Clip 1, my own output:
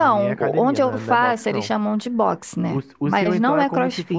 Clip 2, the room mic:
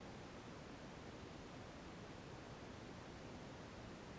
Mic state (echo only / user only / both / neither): neither